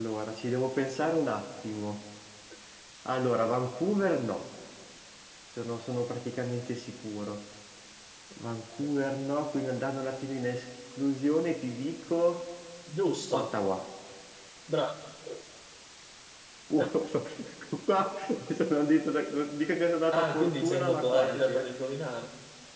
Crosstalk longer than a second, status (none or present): present